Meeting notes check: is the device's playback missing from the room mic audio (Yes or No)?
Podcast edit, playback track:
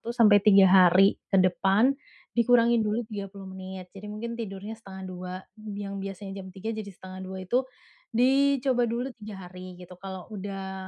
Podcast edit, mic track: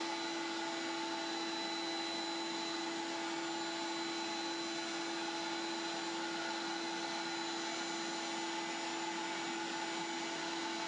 Yes